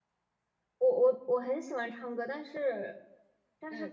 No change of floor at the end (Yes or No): Yes